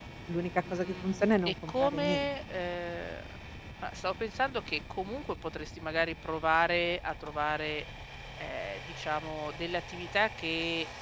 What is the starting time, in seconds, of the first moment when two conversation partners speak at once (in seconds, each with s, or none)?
0.7 s